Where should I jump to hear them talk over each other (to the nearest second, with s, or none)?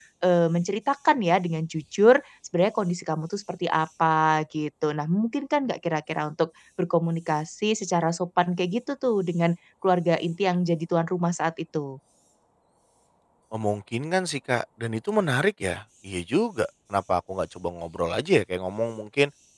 none